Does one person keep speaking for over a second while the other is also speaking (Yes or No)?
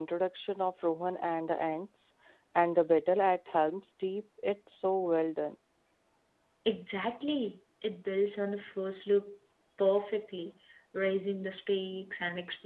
No